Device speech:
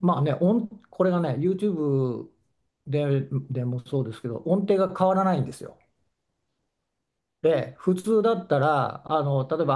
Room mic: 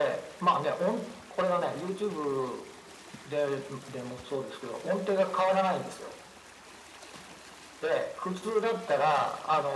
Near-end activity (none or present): none